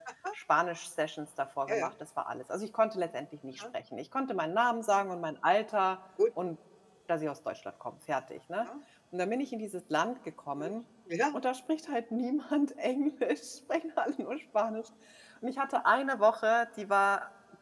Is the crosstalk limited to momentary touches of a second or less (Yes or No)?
Yes